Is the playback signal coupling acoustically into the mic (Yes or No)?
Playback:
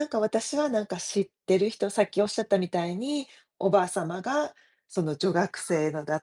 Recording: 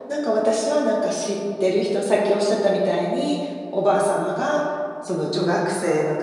Yes